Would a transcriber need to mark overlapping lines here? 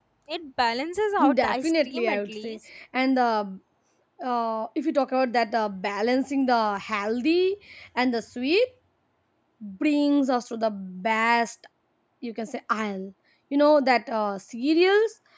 Yes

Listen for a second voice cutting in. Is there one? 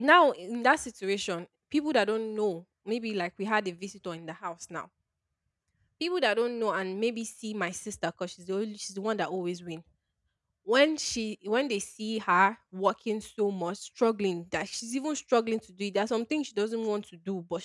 No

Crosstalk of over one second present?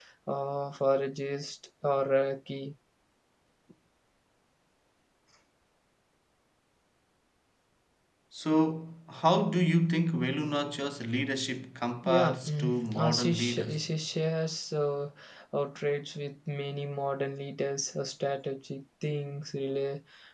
Yes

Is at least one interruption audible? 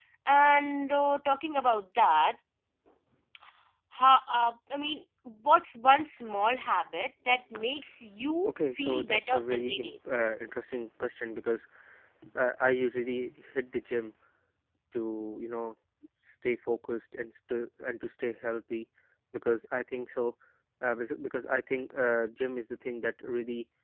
Yes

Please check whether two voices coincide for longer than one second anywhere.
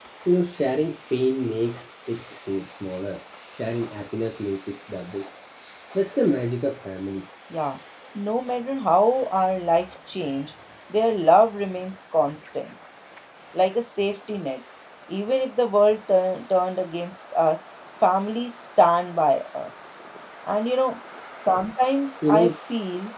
No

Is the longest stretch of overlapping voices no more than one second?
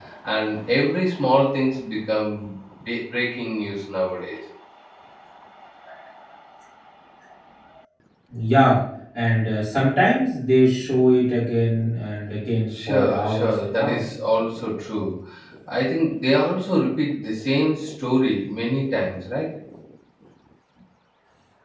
No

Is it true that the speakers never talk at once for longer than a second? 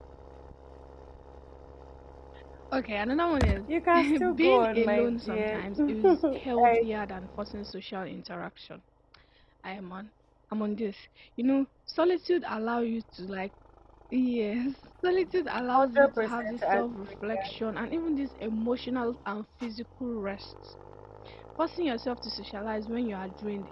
No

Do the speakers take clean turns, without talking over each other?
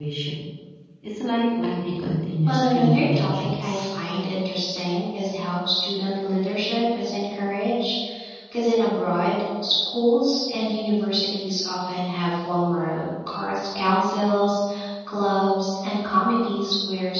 No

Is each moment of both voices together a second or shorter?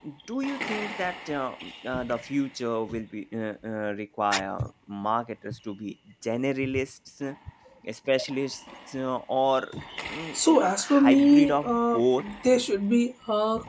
No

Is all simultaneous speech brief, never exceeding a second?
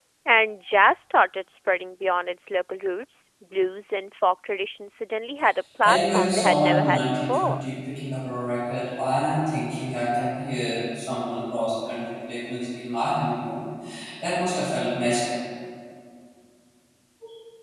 No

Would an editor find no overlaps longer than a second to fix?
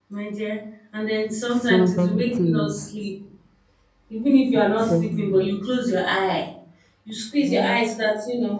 No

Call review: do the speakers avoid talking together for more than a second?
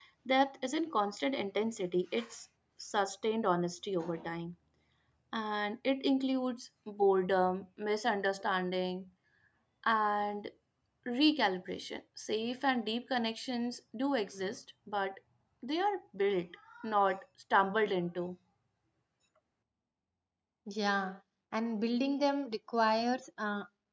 Yes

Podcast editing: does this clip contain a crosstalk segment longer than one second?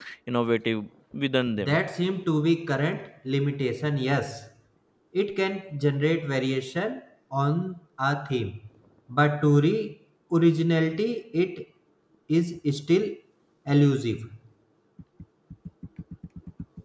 No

